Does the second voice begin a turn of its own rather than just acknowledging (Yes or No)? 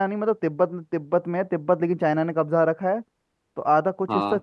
No